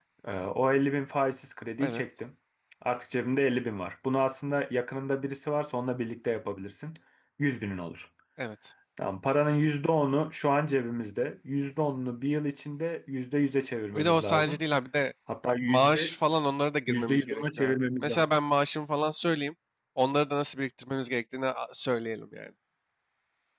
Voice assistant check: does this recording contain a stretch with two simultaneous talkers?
Yes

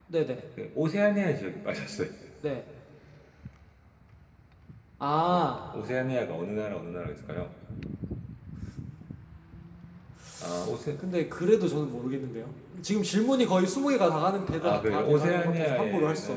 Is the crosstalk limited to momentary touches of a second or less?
No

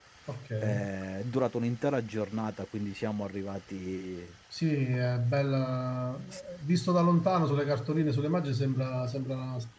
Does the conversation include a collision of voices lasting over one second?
No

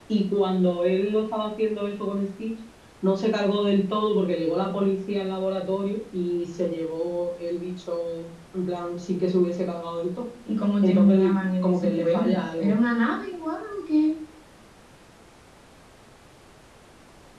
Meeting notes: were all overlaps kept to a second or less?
No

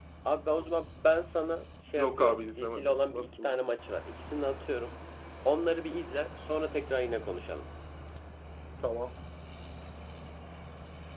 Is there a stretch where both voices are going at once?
Yes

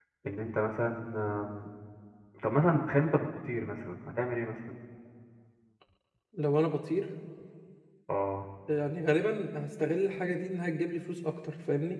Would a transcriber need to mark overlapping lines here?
No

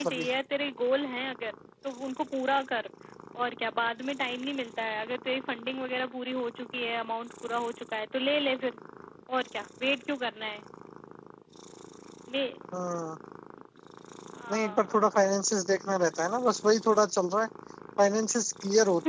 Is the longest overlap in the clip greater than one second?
No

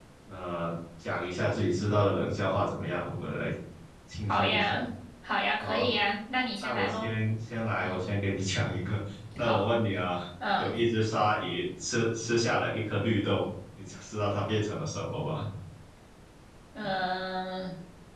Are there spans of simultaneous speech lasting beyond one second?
No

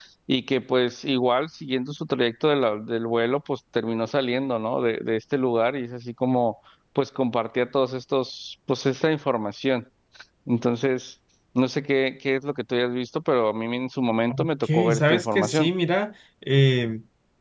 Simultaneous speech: Yes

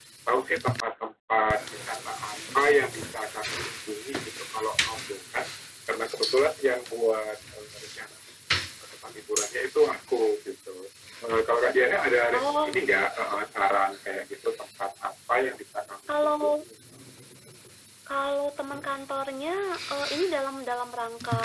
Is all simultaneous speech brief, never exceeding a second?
Yes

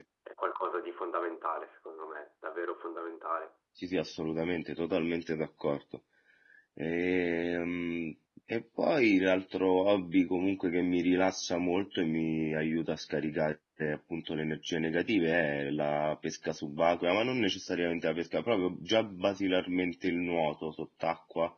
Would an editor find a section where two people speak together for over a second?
No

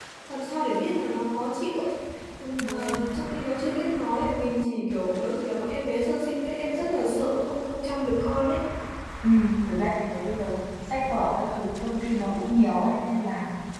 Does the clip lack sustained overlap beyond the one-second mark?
Yes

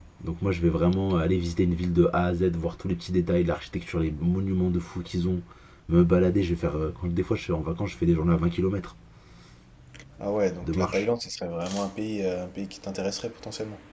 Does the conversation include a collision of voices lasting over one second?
No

